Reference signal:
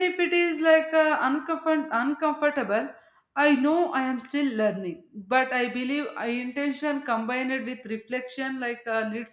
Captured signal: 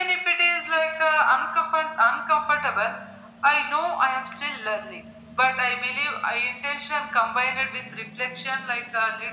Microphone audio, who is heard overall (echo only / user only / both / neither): echo only